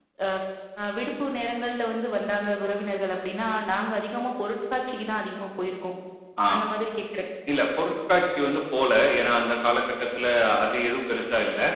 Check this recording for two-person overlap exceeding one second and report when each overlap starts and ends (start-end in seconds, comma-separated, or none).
none